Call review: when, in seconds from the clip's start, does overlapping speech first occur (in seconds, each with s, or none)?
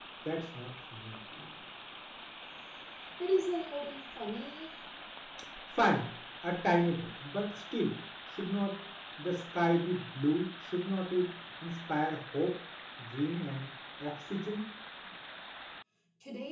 none